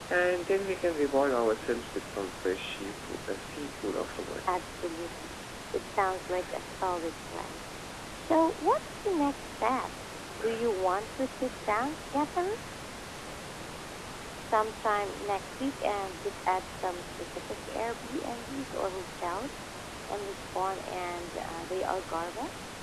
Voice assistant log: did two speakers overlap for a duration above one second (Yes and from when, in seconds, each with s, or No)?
No